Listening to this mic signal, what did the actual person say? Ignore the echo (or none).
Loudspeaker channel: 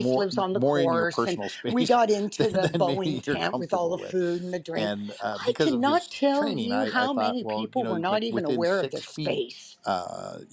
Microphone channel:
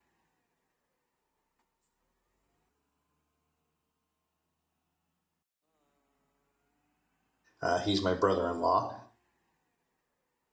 Uh, he's my brother in law.